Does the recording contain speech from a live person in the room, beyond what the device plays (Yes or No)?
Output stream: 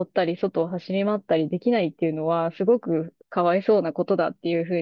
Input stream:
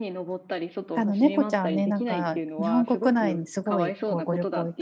Yes